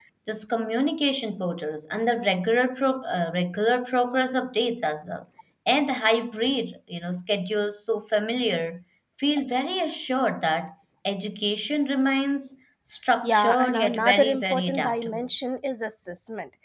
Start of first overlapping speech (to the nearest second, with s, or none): 13 s